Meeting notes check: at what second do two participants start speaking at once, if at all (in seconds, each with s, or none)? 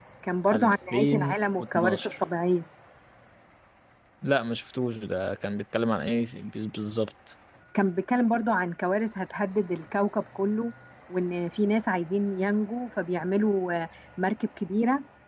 0.5 s